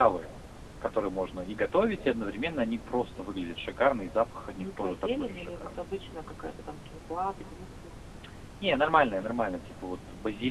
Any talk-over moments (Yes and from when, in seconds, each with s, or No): Yes, from 4.6 s